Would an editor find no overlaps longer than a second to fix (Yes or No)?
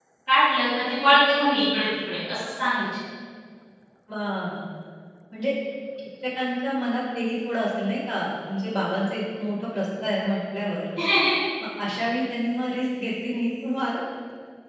Yes